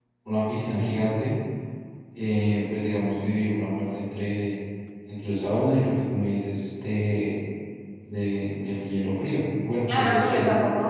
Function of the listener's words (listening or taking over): taking over